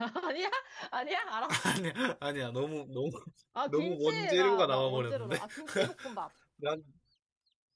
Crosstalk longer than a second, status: present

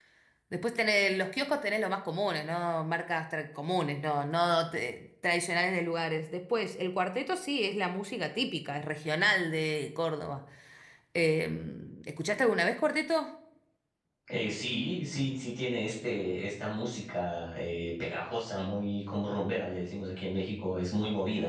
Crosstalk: none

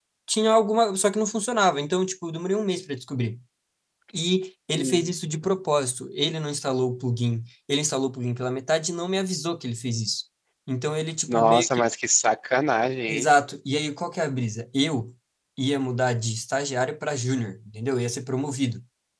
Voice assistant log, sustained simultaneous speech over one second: none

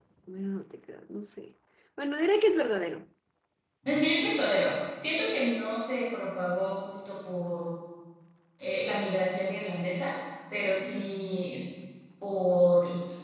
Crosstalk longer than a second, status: none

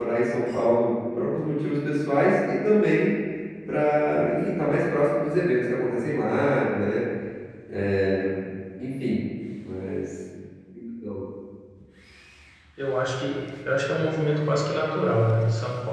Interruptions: none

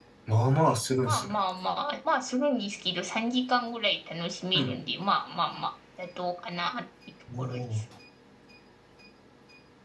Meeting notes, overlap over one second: none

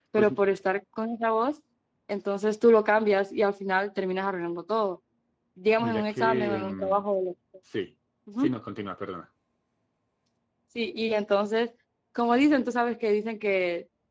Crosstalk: present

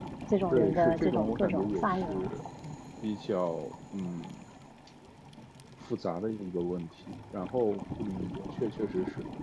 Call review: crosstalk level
present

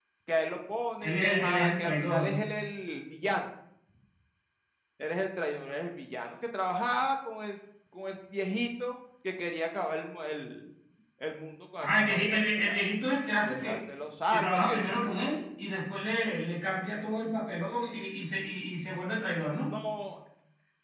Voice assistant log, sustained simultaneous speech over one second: present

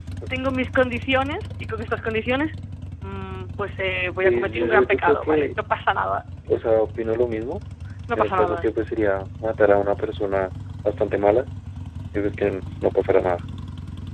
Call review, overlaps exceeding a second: present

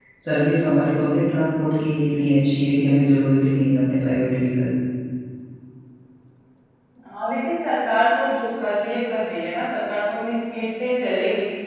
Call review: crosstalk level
none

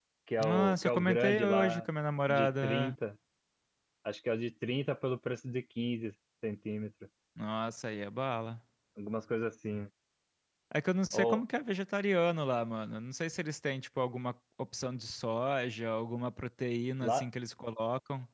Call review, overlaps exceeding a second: present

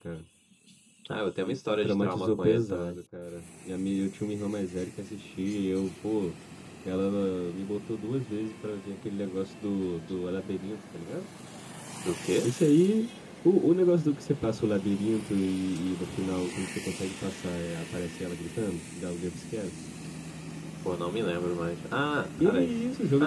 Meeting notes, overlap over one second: present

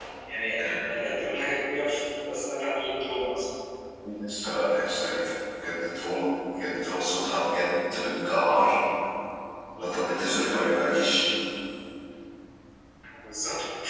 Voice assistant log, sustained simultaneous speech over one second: none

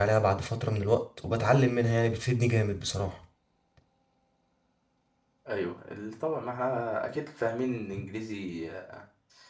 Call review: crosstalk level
none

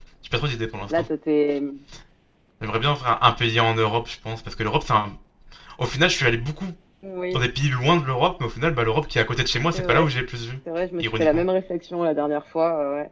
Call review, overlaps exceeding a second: none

